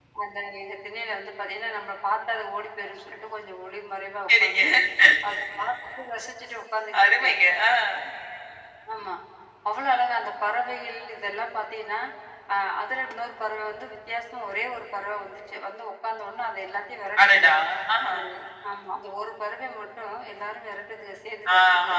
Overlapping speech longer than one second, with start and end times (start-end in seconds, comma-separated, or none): none